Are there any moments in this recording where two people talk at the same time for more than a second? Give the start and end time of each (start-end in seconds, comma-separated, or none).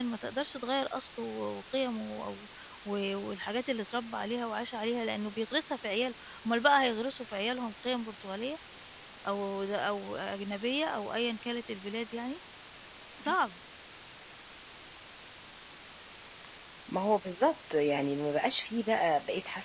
none